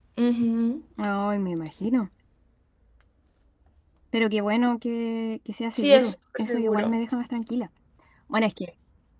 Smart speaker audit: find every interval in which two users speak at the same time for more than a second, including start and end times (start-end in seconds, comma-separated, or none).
5.7-7.0